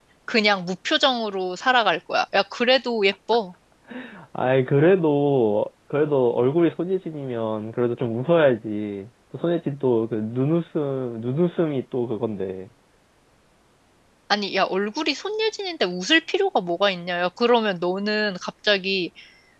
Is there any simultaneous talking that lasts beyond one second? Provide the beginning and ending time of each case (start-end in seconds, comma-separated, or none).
none